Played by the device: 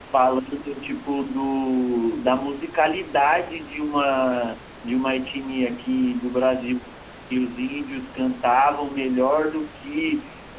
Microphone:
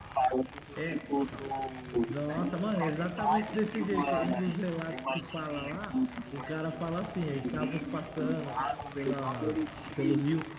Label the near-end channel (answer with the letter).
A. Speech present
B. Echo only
A